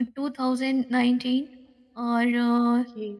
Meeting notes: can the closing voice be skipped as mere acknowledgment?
Yes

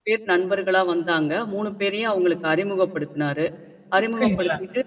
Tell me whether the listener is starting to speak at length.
No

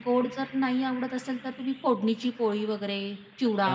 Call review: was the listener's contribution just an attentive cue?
No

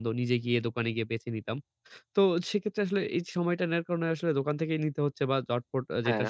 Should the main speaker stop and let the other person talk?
No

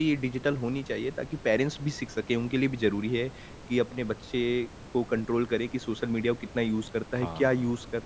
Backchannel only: Yes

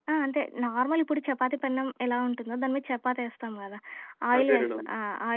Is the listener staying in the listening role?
Yes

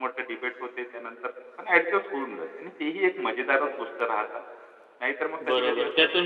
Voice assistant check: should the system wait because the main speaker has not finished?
No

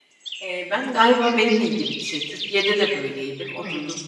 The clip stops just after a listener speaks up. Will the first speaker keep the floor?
Yes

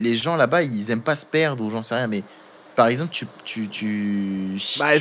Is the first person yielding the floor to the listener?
Yes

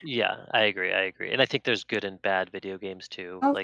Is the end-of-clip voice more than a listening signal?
No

